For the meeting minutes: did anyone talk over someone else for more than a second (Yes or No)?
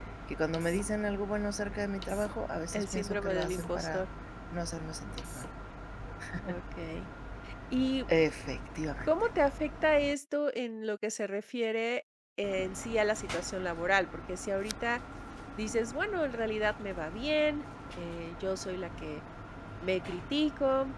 Yes